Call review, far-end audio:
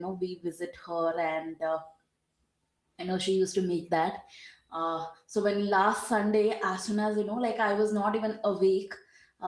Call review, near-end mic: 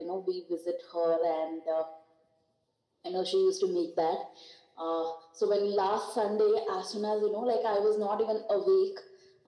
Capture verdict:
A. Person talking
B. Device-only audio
B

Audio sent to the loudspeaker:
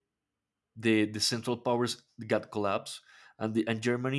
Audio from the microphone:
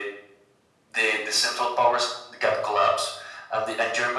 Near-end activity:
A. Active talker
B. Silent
B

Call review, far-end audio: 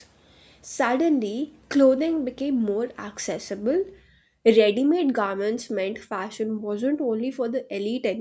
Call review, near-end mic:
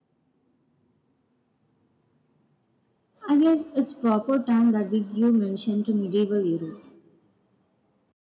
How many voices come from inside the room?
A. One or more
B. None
A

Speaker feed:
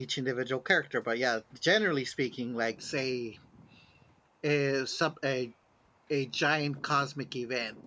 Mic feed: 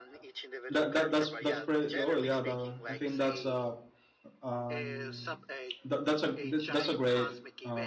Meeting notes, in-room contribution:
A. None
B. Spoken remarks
B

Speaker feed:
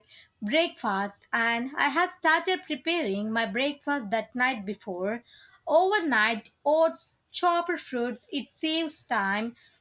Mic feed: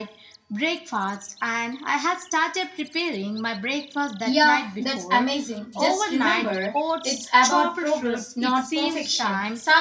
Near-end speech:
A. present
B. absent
A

